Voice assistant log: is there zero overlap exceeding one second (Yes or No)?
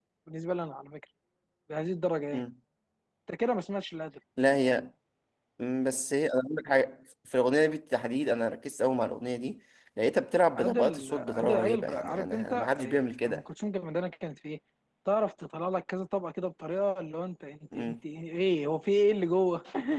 No